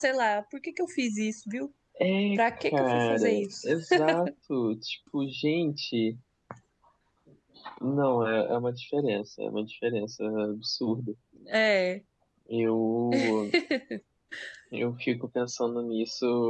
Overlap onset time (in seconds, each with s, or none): 2.4 s